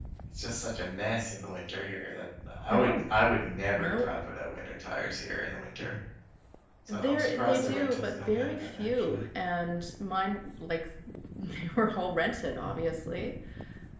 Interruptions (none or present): present